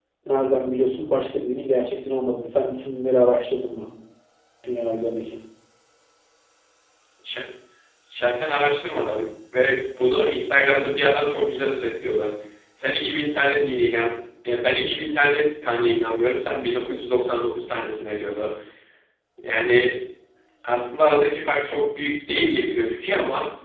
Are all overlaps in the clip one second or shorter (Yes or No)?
Yes